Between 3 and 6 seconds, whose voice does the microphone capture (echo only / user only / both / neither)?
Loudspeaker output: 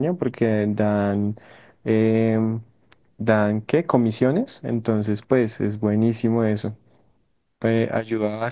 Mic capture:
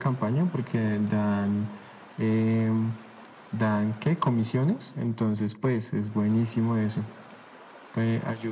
echo only